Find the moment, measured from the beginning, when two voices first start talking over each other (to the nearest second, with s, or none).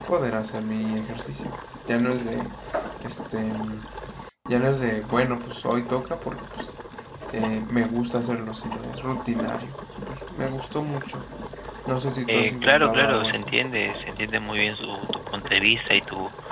12 s